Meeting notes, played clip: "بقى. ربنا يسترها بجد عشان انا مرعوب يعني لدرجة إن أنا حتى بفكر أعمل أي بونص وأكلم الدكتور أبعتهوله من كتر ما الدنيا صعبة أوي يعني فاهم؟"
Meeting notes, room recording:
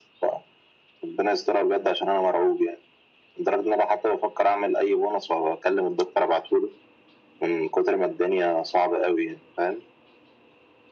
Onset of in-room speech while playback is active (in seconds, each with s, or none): none